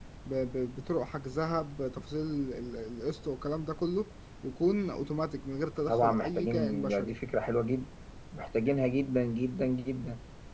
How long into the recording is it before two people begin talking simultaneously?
5.9 s

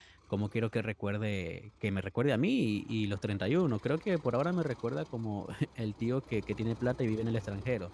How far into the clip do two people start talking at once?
none

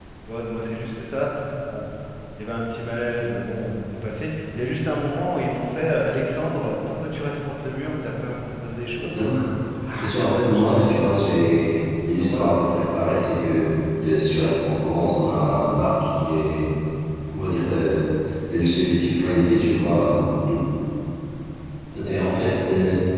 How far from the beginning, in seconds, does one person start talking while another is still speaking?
10.0 s

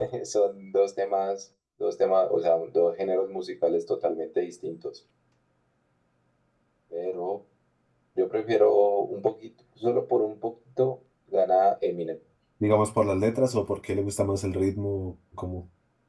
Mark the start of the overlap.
none

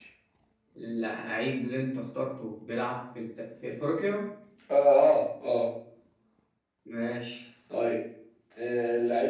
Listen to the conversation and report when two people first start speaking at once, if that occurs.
none

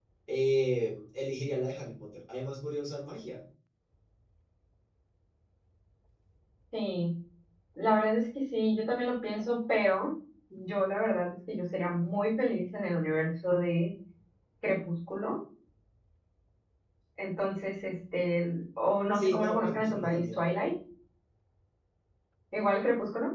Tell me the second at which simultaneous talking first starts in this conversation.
19.1 s

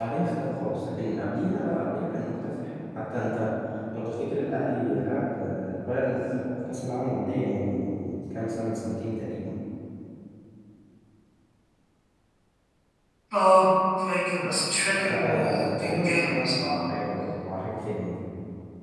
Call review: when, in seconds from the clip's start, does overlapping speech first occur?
14.9 s

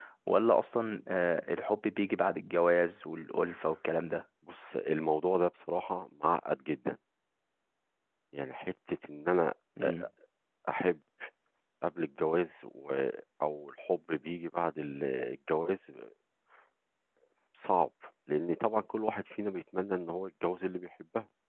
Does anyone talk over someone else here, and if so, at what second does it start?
none

